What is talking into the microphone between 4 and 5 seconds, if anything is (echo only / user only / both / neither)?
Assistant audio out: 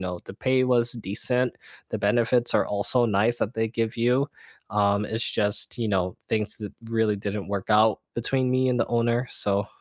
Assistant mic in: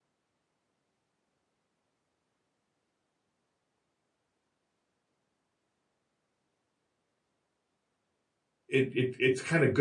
neither